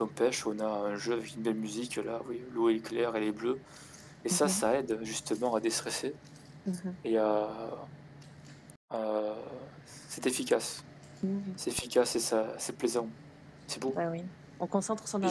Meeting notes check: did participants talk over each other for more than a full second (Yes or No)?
No